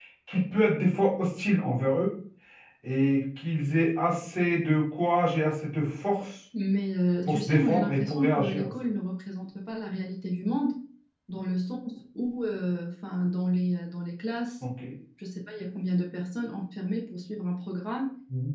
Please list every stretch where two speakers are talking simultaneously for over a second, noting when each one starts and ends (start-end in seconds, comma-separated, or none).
7.2-8.7